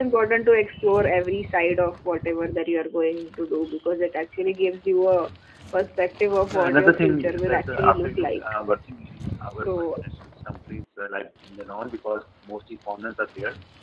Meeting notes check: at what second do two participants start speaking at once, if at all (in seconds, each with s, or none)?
6.5 s